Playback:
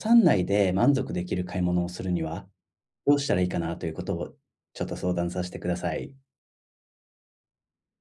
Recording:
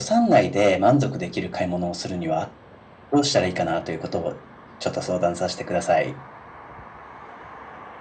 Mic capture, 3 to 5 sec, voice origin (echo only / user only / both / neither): echo only